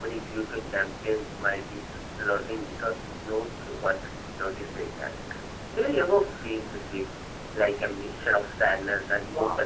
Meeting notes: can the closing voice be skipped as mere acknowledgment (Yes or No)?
No